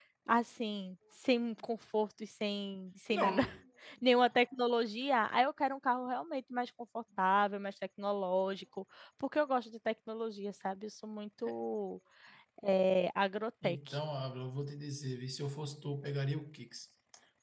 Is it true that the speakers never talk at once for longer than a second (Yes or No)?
Yes